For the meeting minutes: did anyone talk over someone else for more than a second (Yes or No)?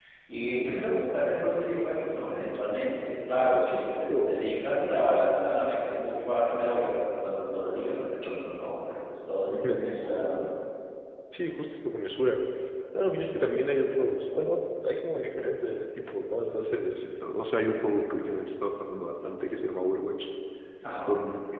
Yes